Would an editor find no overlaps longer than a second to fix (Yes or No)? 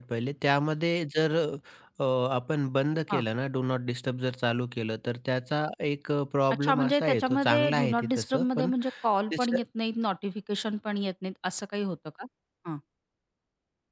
No